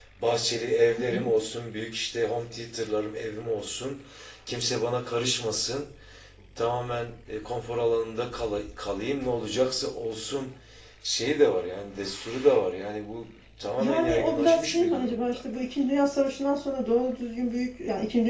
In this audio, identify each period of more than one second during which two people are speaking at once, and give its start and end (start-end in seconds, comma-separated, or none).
13.8-15.4